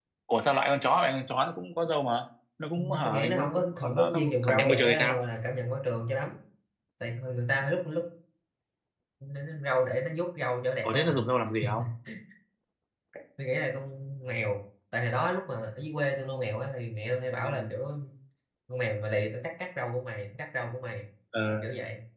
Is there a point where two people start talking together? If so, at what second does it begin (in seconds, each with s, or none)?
2.8 s